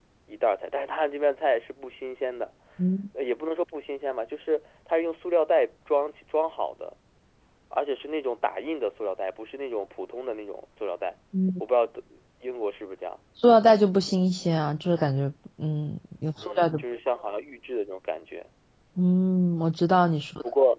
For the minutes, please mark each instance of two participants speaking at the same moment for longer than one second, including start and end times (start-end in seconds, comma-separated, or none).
none